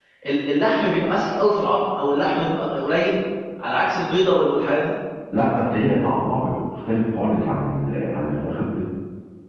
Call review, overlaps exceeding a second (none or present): none